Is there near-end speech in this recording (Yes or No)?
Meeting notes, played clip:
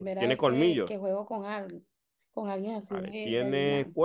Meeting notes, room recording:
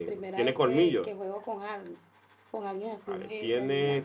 No